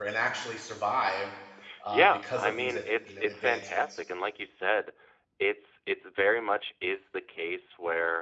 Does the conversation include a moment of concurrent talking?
Yes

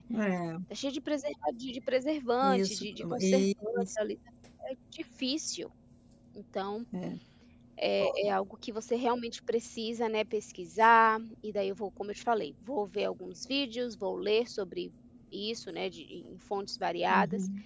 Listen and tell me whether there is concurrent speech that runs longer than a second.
Yes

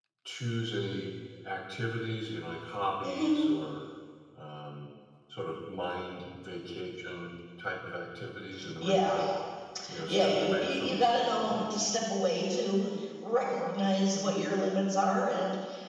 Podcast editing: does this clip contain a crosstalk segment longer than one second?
Yes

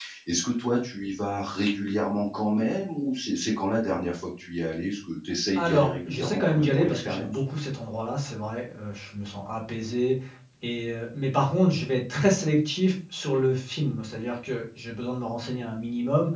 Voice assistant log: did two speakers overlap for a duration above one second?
Yes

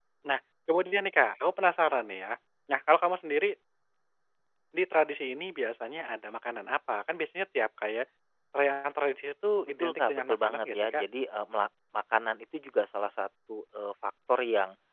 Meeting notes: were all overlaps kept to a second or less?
No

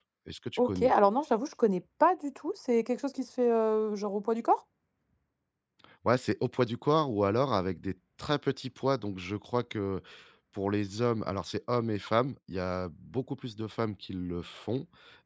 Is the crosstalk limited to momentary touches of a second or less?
Yes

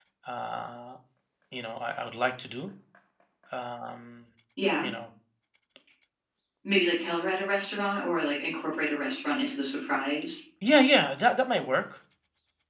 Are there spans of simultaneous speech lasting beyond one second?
No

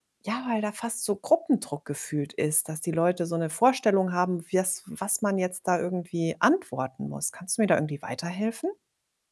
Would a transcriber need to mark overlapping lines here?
No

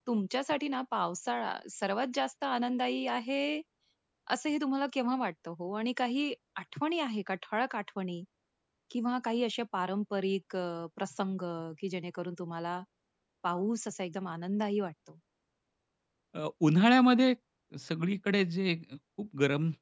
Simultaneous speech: No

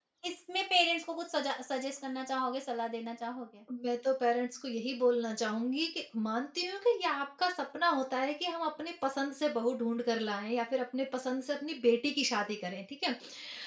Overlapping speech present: No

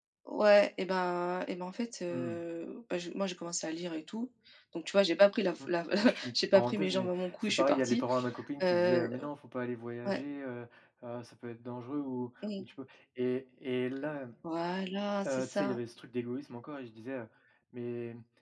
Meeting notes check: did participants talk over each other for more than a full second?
Yes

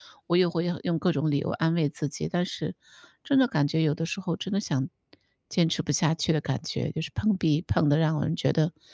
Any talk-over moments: No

